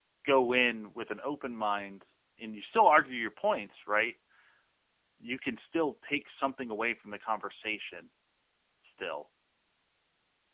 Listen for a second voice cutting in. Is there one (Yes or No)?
No